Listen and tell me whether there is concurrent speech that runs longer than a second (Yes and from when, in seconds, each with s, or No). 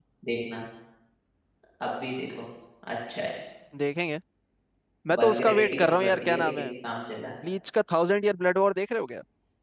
Yes, from 5.2 s